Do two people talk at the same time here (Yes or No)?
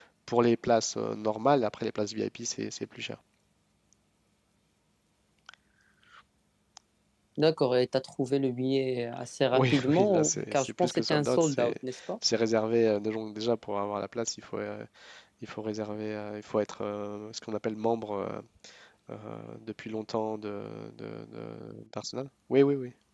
Yes